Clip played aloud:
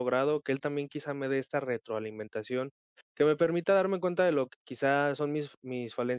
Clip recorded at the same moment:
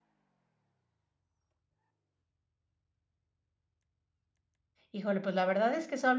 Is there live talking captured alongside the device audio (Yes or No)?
Yes